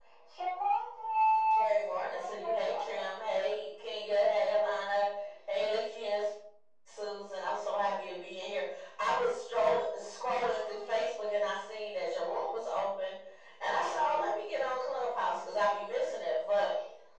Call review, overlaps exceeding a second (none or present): present